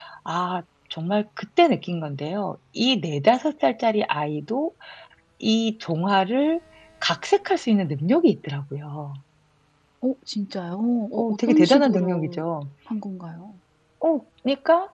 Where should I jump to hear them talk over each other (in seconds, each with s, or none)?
11.1 s